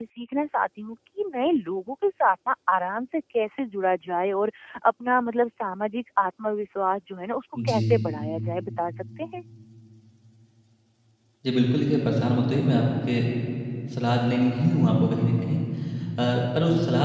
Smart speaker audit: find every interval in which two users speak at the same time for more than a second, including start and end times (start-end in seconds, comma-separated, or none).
none